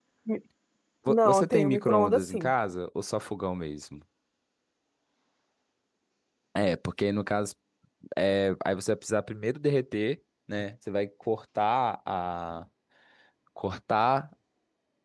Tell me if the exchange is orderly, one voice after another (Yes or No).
No